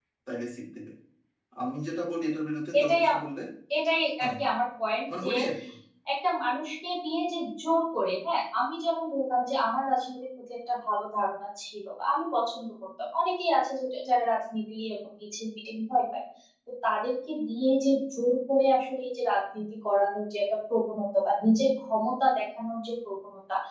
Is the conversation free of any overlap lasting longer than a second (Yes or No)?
Yes